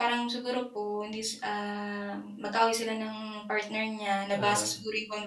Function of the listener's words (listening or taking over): listening